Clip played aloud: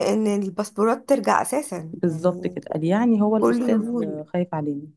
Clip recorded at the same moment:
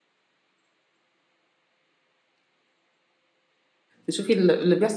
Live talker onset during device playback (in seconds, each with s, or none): 4.0 s